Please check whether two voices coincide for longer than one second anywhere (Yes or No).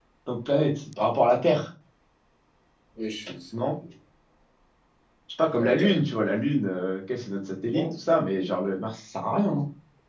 No